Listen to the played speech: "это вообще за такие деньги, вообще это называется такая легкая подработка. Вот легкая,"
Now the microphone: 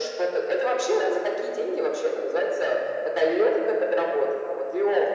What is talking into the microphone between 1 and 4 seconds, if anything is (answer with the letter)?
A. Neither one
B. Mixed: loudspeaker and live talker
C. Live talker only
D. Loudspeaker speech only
D